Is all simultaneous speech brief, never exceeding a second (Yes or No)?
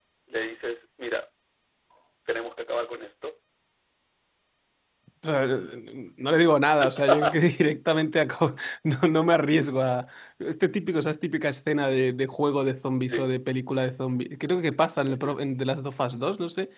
Yes